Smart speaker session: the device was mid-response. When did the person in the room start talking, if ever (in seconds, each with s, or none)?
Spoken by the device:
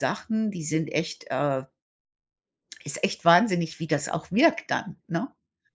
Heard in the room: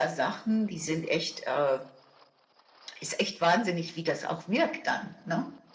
none